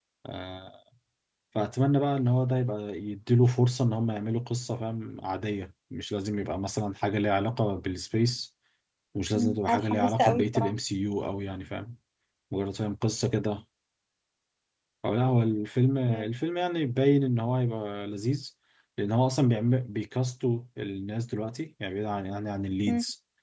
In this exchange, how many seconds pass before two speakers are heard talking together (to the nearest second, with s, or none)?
9 s